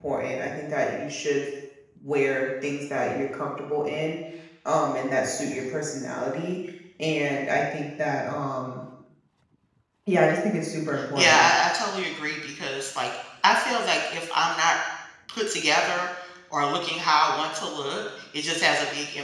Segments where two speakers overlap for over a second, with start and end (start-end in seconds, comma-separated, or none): none